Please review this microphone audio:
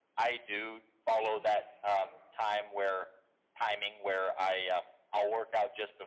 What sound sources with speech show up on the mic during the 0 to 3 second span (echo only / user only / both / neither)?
both